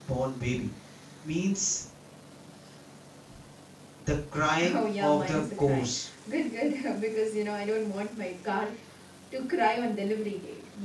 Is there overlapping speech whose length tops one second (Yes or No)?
Yes